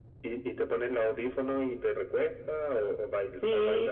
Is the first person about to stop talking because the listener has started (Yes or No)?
Yes